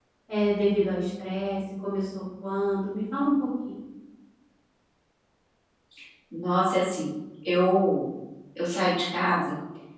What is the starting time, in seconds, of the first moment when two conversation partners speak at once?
none

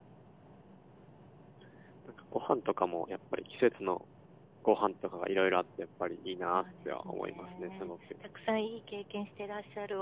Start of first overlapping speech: 7 s

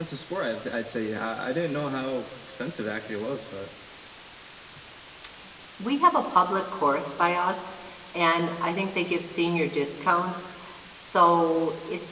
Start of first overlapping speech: none

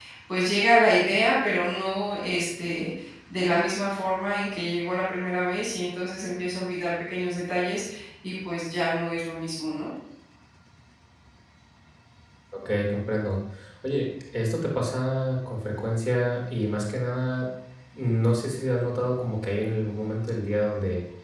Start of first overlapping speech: none

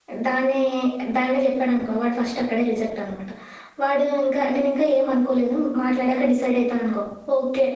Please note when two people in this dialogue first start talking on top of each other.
none

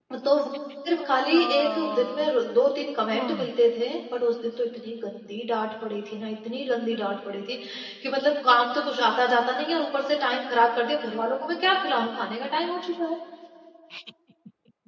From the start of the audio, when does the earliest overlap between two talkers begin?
1 s

